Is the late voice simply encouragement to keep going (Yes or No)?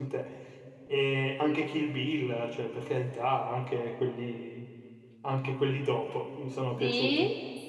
No